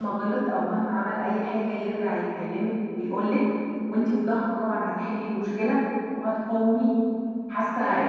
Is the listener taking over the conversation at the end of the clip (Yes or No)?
No